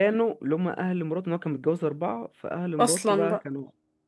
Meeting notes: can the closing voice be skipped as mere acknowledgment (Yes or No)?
Yes